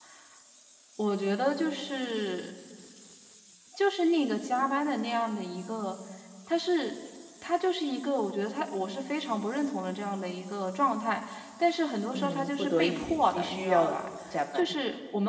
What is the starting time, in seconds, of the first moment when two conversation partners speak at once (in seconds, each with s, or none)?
12.0 s